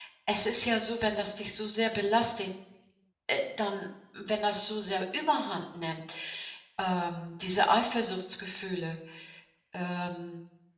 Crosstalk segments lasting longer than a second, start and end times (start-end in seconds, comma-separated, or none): none